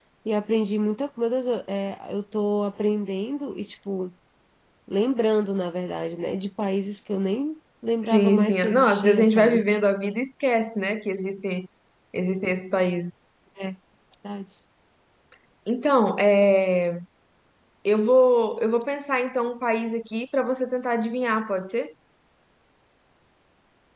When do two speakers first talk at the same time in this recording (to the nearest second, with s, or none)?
8 s